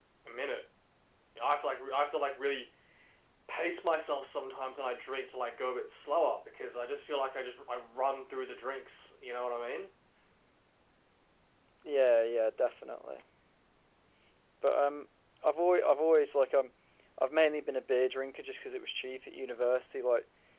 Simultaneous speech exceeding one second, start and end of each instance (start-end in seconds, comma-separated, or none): none